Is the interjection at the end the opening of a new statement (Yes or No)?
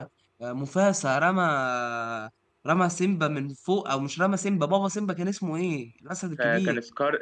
Yes